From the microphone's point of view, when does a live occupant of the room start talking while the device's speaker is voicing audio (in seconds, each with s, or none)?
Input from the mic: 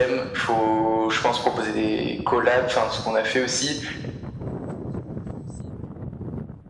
none